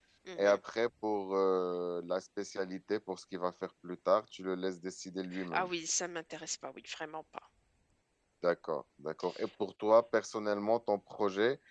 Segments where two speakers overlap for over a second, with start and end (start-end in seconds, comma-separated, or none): none